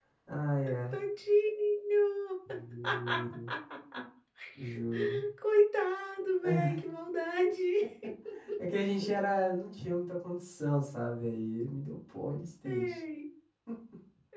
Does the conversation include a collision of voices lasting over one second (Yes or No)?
No